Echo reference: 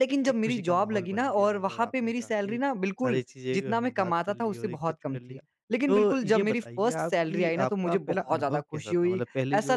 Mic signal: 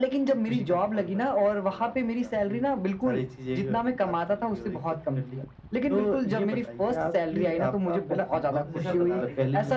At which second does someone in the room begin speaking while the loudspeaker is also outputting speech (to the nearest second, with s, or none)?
9 s